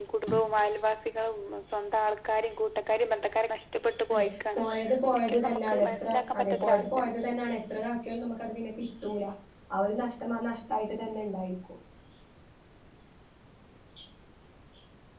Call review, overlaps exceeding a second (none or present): present